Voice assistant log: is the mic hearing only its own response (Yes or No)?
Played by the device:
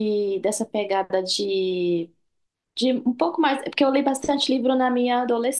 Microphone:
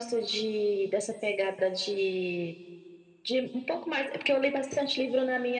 Yes